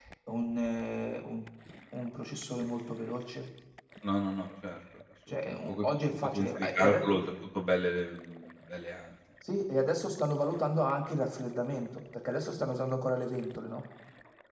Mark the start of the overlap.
5.3 s

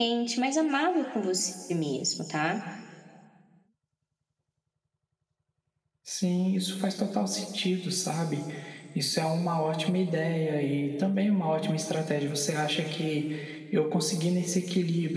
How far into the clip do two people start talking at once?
none

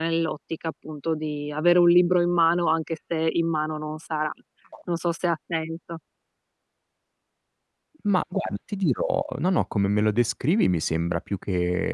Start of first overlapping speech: none

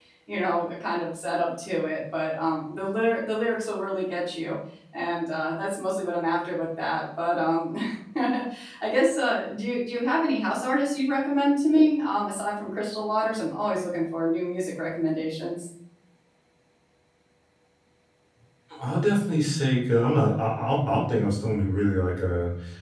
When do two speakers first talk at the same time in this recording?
none

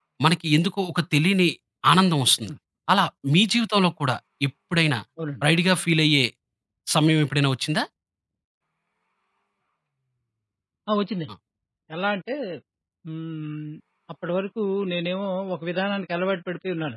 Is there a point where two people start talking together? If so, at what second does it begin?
none

